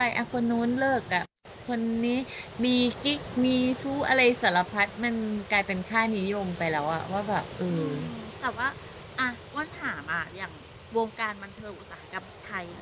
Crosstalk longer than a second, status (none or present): none